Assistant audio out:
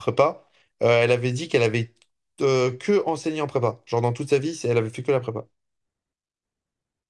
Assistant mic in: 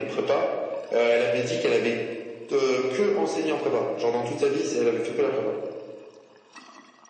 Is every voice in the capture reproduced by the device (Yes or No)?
Yes